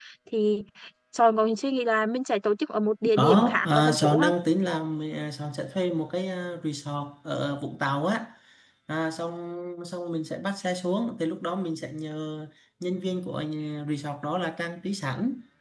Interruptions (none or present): present